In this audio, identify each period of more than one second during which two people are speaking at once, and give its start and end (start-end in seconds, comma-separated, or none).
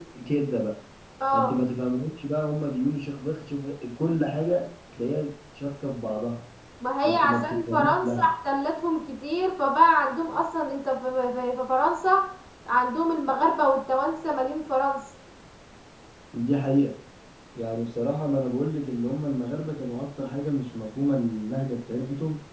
7.0-8.3